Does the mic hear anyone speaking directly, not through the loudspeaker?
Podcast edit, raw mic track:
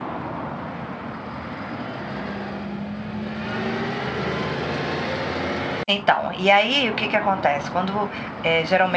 Yes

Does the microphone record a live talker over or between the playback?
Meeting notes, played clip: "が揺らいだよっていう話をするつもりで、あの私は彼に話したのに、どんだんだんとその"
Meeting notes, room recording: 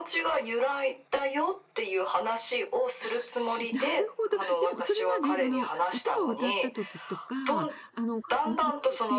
Yes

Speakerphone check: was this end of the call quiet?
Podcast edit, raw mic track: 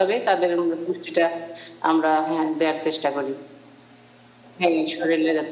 Yes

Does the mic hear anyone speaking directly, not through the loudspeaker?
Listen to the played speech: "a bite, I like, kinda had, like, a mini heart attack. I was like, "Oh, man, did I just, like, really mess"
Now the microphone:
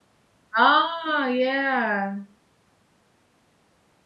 Yes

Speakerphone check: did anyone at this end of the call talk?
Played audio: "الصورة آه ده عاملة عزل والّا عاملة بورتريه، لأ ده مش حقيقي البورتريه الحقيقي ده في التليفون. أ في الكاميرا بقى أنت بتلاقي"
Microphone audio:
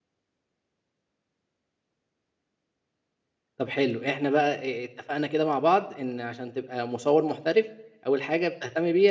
Yes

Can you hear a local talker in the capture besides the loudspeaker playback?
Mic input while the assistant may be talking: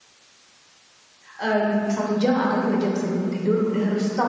Yes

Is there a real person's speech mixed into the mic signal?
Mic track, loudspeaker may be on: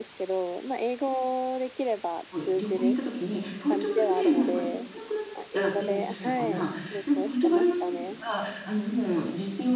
Yes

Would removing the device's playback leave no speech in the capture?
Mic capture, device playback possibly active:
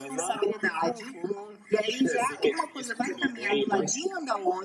Yes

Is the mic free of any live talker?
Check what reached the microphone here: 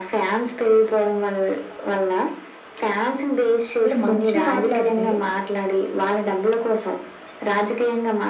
No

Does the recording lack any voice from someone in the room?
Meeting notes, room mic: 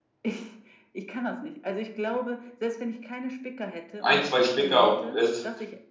No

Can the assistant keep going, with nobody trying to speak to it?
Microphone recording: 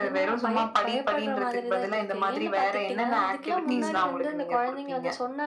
No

